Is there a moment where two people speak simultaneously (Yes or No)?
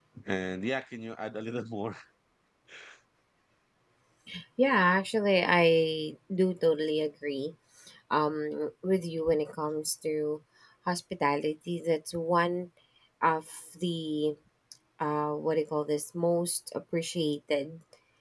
No